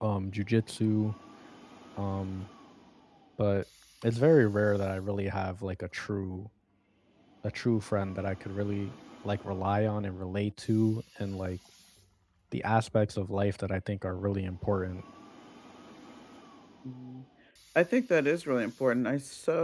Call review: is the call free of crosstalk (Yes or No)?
Yes